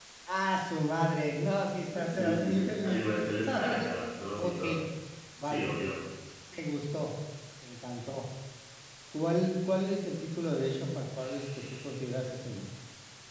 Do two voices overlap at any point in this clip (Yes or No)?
Yes